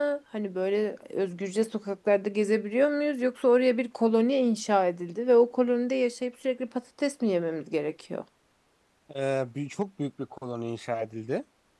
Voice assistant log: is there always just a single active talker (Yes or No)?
Yes